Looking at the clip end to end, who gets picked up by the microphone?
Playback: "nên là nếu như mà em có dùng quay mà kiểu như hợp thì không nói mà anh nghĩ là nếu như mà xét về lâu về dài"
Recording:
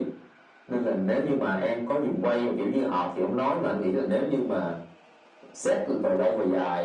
echo only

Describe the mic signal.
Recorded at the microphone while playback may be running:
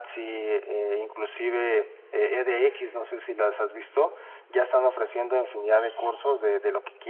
echo only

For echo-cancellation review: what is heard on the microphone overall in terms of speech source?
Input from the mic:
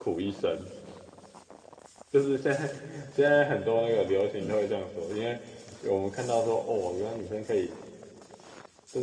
user only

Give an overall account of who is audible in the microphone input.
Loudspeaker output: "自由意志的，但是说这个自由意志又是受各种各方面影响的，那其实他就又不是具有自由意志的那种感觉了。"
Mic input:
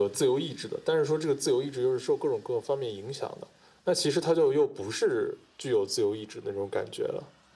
echo only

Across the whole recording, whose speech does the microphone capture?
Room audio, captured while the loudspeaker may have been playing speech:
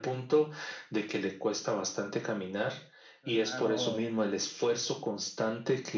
both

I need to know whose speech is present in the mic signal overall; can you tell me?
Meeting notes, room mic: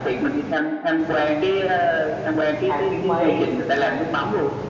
both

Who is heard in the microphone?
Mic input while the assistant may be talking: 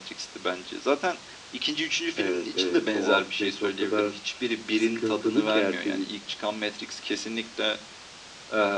echo only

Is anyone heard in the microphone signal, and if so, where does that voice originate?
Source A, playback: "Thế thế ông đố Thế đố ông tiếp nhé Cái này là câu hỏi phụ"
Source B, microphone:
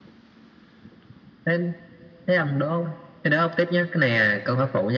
echo only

